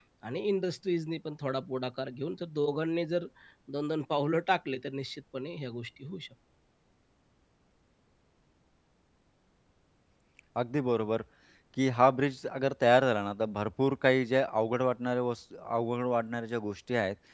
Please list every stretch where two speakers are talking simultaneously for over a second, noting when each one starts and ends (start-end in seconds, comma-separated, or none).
none